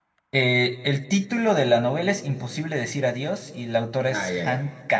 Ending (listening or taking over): taking over